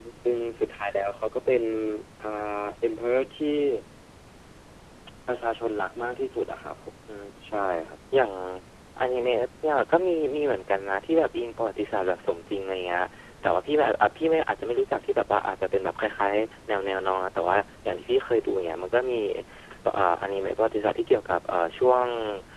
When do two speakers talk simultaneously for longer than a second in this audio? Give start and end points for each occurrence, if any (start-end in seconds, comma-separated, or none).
none